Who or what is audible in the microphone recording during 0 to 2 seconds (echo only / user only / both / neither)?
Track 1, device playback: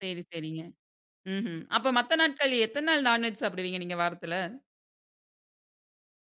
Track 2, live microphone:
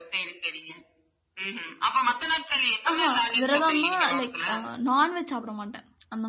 echo only